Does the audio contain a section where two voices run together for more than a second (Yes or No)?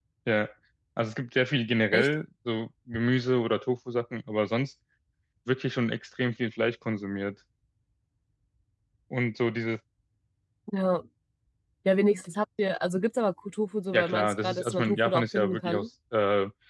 Yes